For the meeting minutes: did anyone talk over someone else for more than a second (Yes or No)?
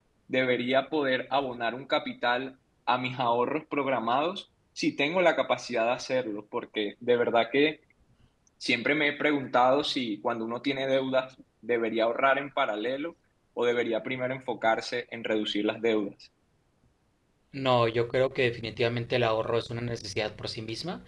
No